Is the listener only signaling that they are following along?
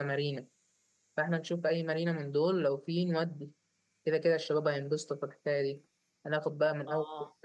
Yes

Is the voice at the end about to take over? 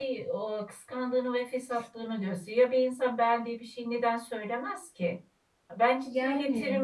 No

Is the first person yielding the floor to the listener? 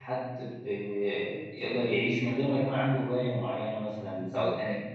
No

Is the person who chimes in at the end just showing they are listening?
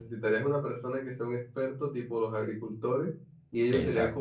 Yes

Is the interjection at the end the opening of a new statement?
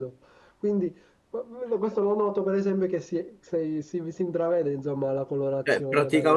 Yes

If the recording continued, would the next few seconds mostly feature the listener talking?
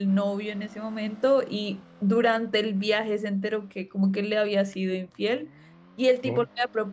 No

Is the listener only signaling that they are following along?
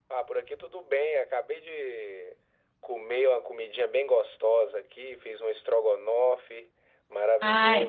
Yes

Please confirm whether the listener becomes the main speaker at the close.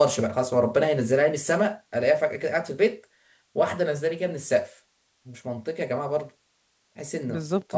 Yes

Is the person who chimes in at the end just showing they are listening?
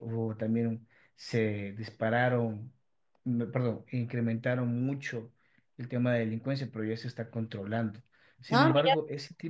Yes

